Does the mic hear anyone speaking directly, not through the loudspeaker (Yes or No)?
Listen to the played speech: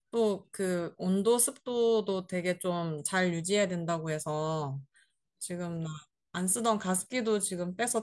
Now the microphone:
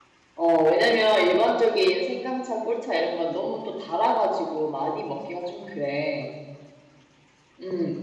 Yes